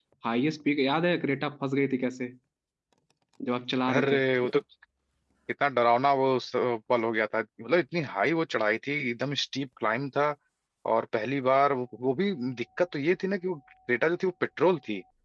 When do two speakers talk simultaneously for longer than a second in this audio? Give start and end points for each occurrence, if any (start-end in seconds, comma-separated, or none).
none